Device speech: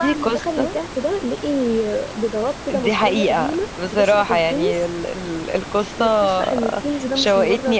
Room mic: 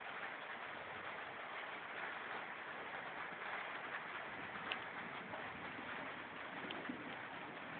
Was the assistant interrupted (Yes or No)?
No